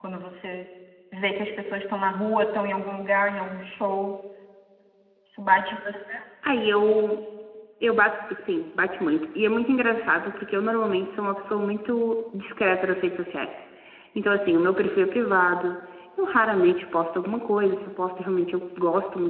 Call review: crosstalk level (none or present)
none